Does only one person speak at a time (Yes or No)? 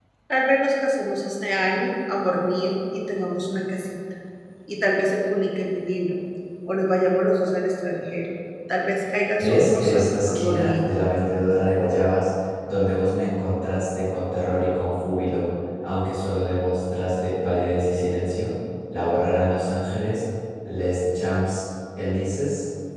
No